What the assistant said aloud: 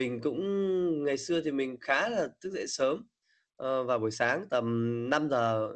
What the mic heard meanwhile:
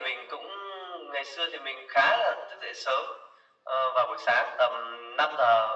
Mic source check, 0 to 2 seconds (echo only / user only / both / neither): echo only